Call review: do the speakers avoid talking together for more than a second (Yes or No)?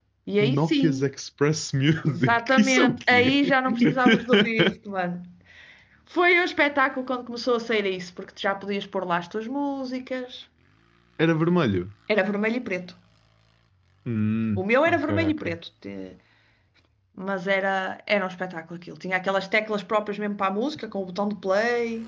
No